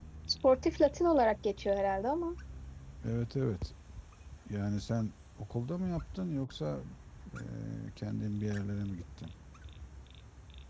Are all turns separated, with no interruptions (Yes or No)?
Yes